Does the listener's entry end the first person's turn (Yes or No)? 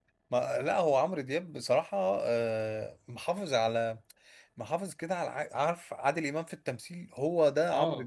No